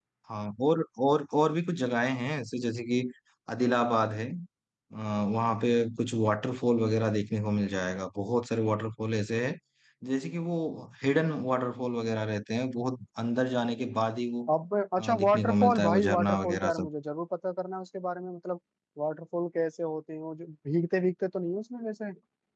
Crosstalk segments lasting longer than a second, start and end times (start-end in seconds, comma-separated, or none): 15.0-16.9